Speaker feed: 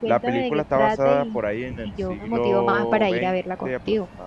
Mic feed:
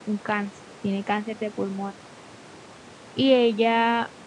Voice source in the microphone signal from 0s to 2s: user only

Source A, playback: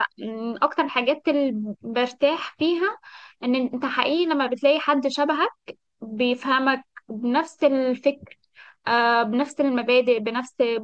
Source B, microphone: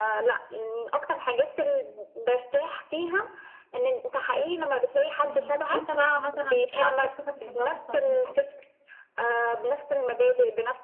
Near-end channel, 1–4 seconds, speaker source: echo only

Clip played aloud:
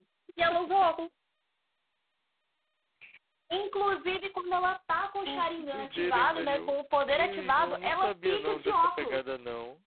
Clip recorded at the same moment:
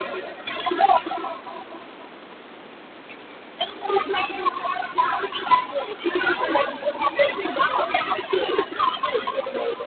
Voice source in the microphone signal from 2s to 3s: neither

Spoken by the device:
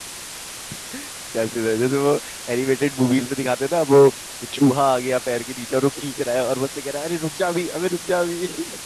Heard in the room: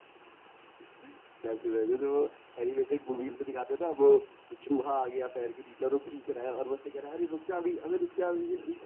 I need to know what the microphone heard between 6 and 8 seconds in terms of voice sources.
echo only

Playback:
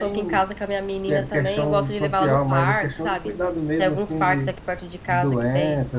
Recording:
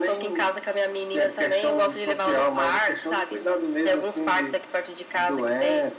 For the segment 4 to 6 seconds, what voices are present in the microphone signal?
echo only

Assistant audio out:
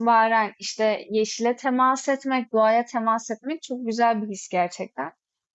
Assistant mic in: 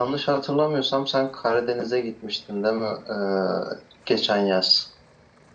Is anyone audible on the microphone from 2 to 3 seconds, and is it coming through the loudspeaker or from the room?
user only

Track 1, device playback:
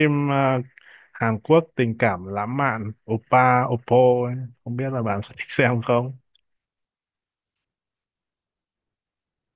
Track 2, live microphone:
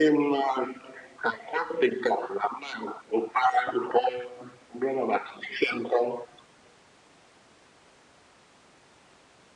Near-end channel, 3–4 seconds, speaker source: echo only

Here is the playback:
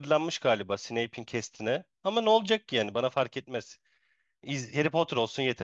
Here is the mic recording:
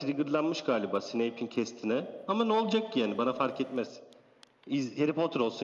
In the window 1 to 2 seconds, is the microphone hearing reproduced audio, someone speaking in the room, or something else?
echo only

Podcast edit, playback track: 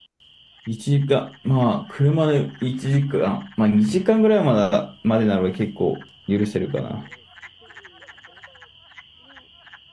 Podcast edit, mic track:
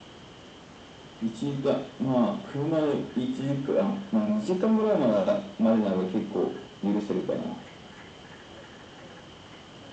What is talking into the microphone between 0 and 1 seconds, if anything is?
neither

